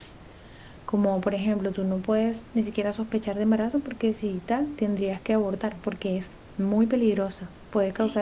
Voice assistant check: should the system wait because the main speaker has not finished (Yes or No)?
Yes